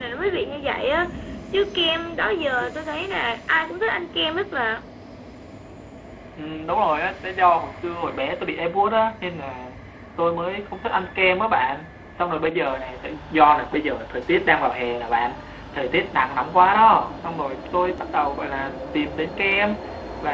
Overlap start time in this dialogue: none

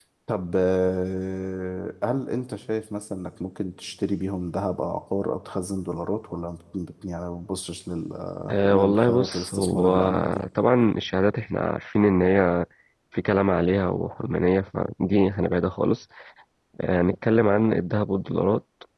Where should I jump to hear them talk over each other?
8 s

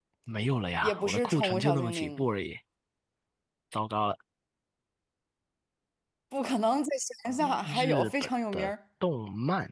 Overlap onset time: 1 s

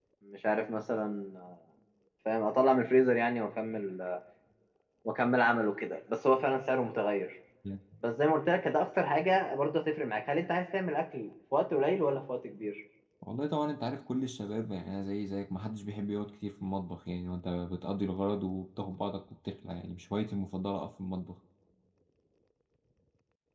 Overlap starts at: none

